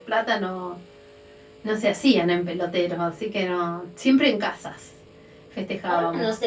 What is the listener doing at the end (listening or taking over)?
taking over